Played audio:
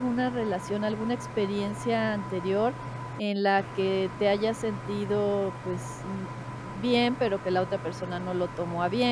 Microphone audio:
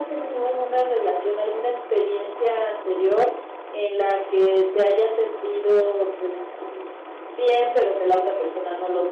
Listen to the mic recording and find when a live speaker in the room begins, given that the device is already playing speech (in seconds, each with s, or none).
none